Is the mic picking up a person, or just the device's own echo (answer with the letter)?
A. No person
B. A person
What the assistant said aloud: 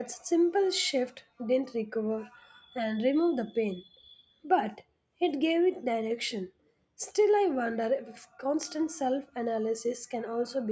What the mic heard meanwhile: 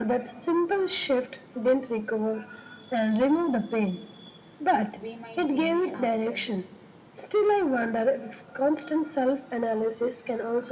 B